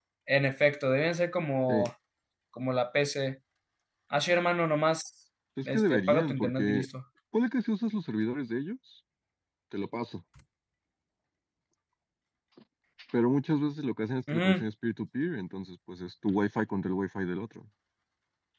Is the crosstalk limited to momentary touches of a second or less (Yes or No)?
No